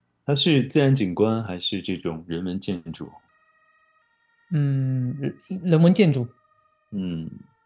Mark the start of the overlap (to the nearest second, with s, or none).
none